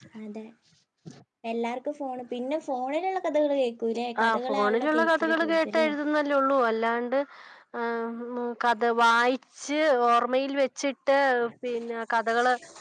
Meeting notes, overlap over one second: present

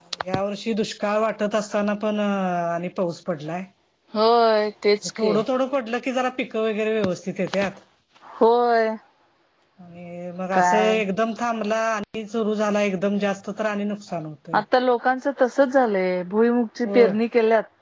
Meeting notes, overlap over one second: none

